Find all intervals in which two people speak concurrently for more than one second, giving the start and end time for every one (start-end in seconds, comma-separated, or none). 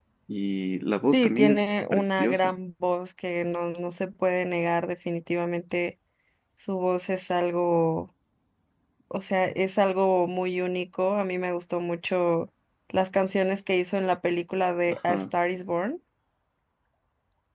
1.1-2.5